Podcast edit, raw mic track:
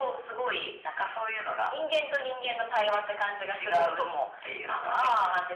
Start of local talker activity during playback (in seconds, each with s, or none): none